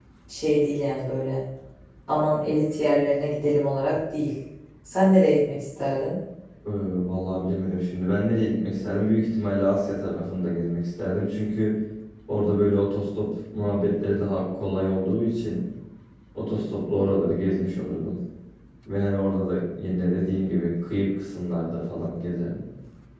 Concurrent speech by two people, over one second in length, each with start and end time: none

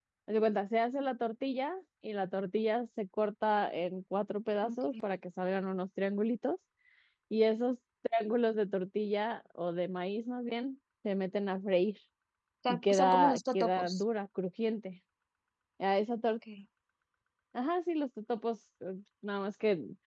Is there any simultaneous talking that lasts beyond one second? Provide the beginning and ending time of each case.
12.7-13.9

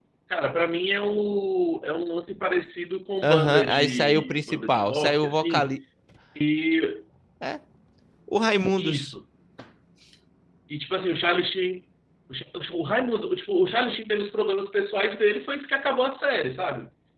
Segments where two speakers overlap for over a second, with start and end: 3.2-5.7

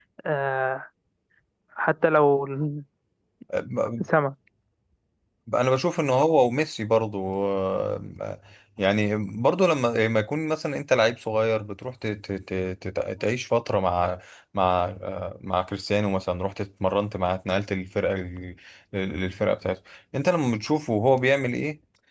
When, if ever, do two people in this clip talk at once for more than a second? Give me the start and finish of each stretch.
none

